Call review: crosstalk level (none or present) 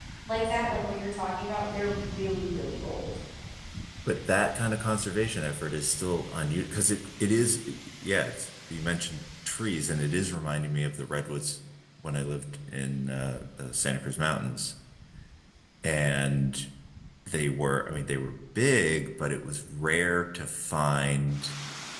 none